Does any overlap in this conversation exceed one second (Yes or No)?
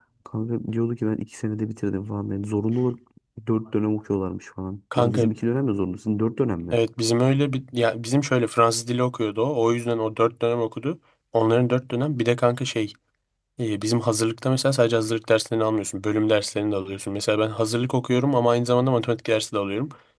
No